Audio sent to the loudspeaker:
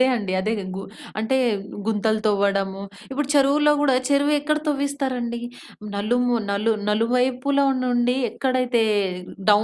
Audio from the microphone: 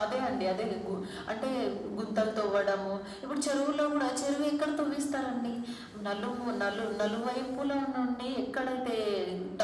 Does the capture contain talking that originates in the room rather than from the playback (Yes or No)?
No